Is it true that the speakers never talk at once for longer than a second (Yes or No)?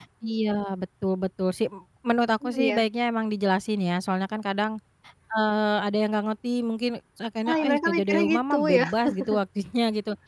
No